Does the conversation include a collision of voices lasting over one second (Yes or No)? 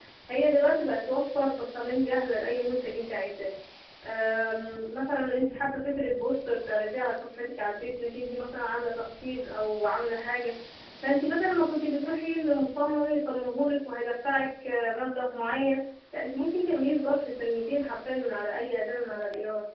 No